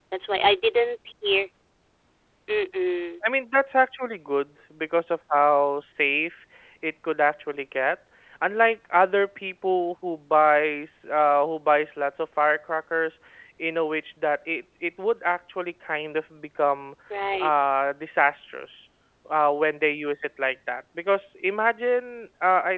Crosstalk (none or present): none